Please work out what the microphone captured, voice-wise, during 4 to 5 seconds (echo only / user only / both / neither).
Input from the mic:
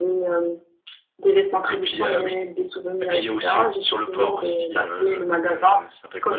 echo only